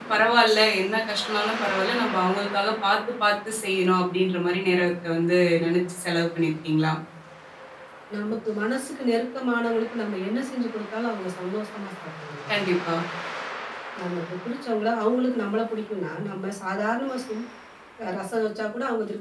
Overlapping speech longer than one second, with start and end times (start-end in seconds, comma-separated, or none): none